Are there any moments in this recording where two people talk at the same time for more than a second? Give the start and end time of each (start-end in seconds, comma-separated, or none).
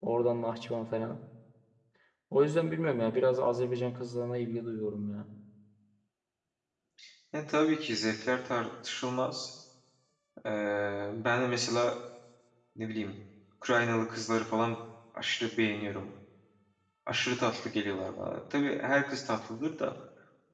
none